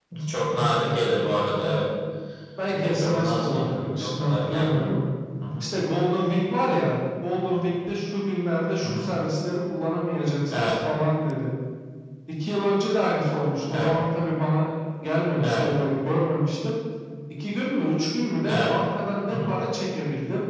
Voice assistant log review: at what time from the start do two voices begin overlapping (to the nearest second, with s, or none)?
3 s